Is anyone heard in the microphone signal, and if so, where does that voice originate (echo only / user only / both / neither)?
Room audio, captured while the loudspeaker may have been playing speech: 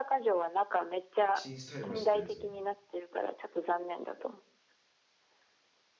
both